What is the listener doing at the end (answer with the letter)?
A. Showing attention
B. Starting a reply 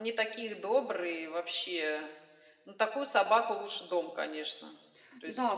B